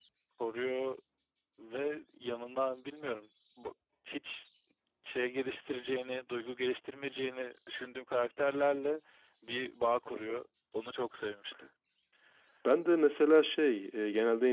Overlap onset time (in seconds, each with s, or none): none